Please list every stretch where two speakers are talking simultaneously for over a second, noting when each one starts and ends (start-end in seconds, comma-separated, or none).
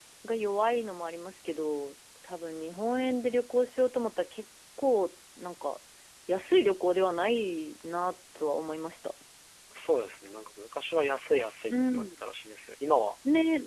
none